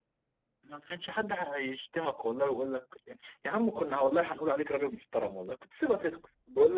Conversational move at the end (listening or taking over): taking over